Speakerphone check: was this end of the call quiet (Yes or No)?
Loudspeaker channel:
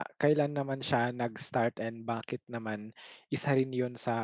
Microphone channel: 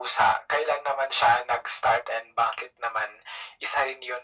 Yes